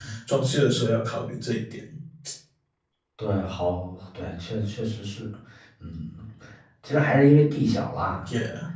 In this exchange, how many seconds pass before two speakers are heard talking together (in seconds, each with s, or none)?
none